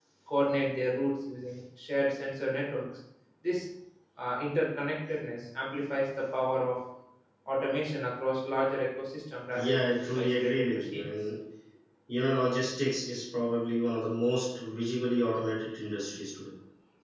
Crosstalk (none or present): present